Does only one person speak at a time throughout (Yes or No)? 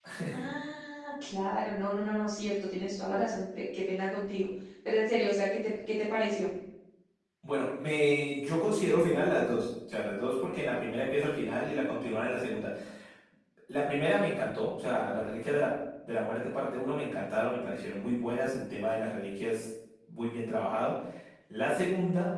Yes